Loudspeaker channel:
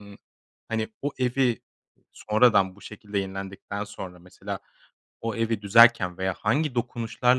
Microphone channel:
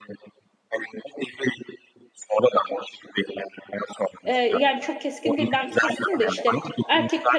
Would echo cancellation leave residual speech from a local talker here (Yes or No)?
Yes